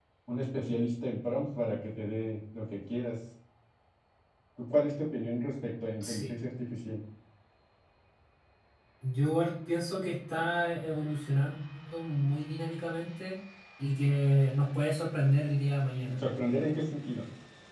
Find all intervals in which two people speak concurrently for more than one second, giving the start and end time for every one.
none

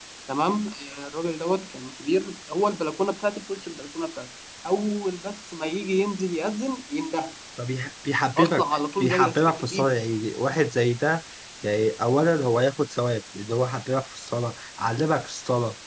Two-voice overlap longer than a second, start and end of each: 8.4-9.9

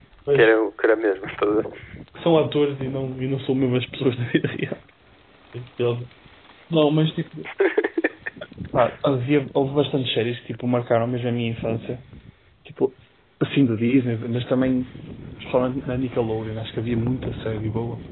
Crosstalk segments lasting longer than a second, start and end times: none

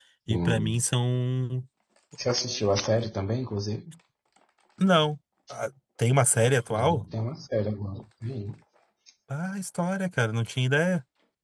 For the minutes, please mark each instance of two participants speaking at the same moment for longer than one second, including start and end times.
none

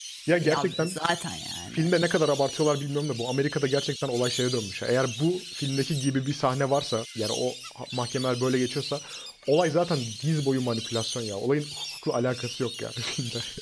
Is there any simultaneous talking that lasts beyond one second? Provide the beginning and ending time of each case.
none

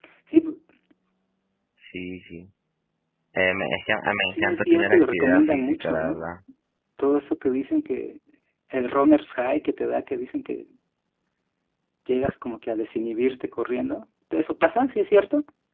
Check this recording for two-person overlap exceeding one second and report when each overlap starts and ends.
4.3-6.3

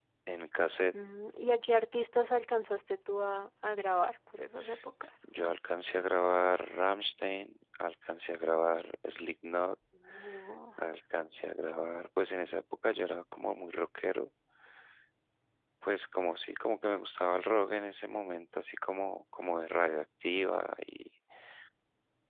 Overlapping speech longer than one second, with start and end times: none

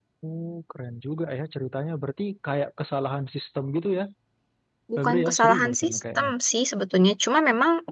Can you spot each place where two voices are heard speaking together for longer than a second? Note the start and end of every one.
5.0-6.3

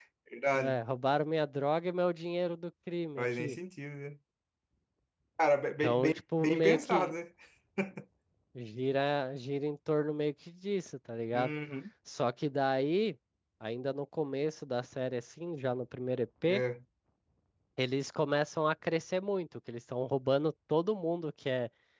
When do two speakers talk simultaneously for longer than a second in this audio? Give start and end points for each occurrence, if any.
5.8-7.1

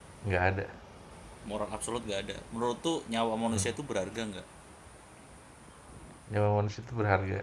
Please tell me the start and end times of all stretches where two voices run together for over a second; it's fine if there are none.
none

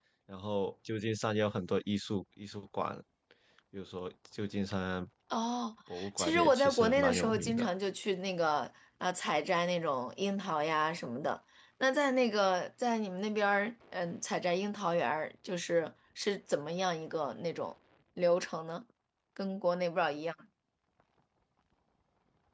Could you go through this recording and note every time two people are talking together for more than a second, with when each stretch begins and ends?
6.2-7.7

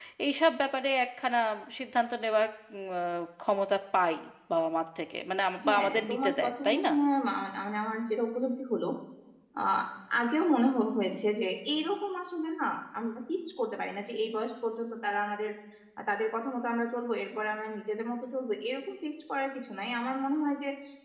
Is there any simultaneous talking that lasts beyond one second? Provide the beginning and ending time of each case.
5.6-6.9

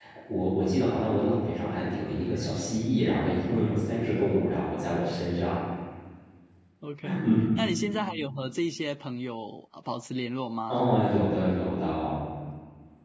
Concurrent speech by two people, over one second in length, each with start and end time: none

